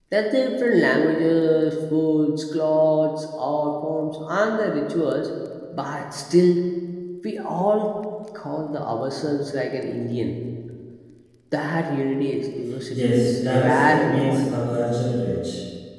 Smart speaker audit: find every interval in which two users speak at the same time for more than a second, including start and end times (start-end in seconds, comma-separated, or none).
12.9-14.5